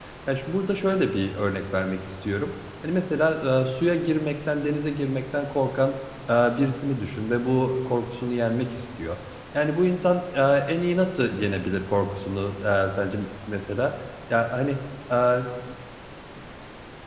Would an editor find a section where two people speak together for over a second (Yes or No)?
No